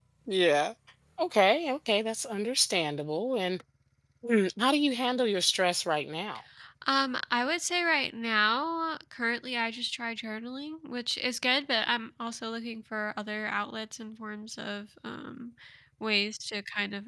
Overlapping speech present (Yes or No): No